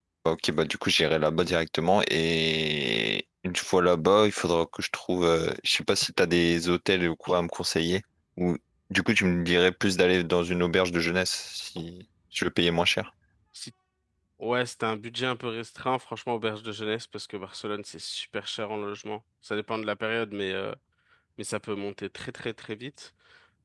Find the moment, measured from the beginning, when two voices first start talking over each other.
none

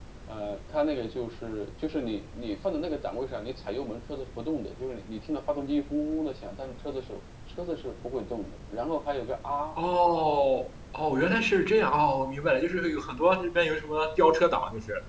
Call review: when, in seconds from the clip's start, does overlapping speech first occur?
none

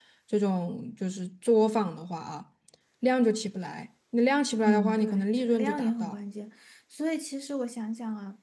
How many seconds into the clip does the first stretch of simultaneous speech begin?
4.7 s

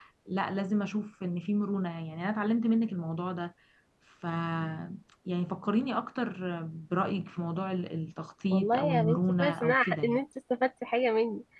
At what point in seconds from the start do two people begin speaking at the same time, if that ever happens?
8.5 s

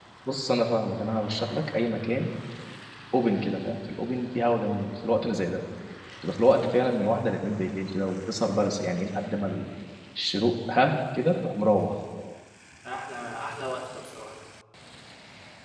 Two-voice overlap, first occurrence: none

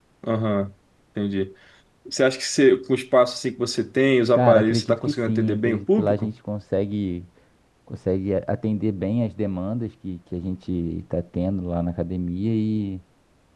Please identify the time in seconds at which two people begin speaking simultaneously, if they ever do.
4.3 s

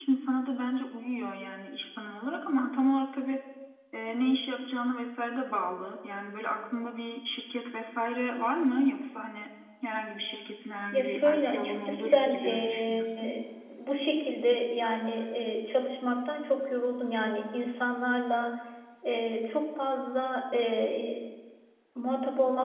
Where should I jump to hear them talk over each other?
10.9 s

